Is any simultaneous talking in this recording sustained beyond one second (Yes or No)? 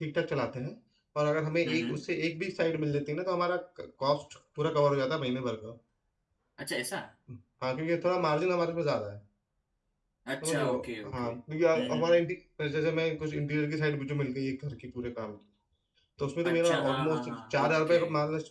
Yes